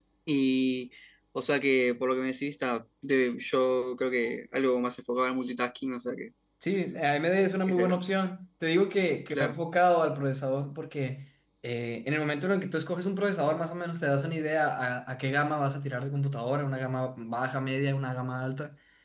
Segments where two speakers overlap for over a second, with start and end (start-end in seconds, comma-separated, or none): none